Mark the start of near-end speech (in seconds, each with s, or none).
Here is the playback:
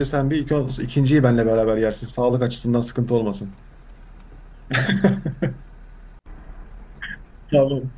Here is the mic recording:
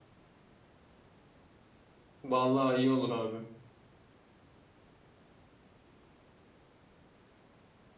2.2 s